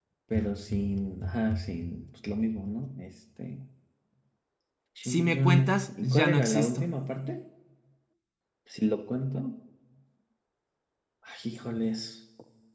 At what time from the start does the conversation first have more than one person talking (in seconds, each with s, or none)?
5.0 s